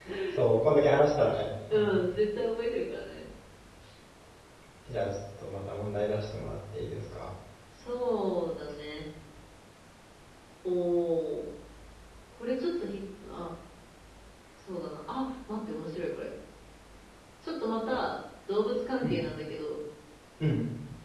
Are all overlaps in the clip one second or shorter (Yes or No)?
Yes